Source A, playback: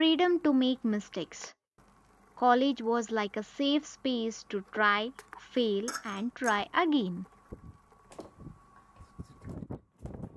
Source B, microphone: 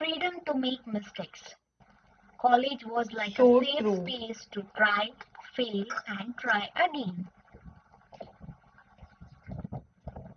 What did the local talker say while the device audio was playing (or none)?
So true.